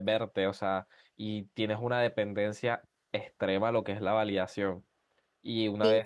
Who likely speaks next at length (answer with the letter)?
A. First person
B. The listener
A